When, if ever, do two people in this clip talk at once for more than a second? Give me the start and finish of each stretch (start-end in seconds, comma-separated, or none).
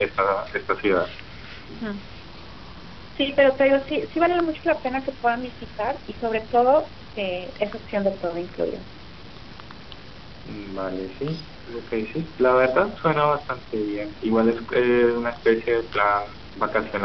none